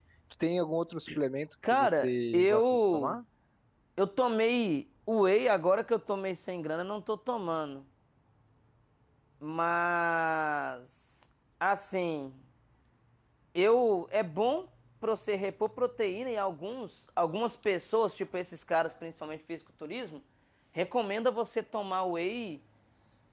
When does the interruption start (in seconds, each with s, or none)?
1.7 s